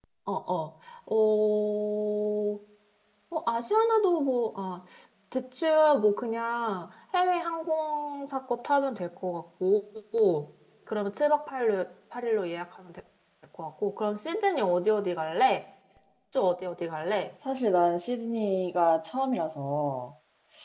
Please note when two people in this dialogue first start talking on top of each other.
none

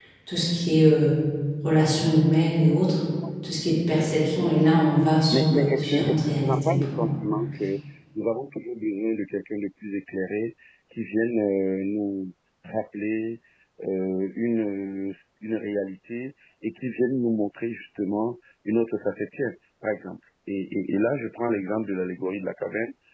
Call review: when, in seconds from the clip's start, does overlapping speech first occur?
5 s

